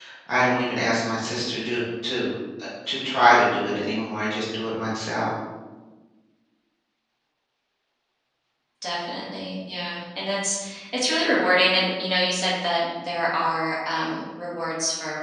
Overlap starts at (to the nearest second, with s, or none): none